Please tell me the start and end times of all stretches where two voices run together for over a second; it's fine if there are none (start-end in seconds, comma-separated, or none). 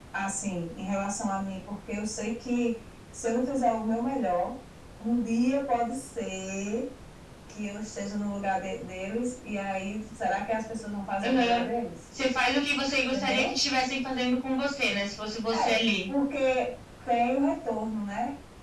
none